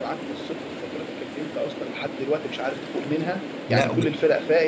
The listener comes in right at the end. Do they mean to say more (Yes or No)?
No